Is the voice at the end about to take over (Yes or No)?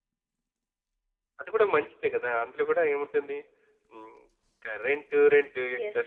No